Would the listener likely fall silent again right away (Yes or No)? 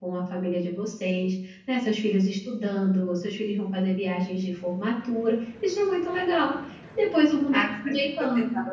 No